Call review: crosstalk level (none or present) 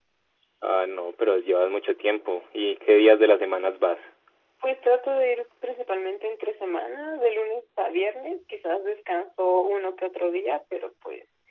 none